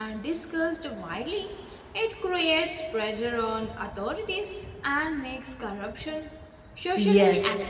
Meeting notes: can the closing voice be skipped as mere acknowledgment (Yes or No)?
No